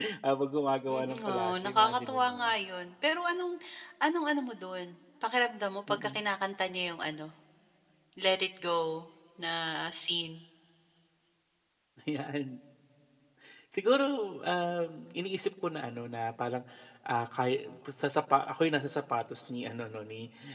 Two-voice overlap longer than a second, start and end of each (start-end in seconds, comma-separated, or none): 0.9-2.5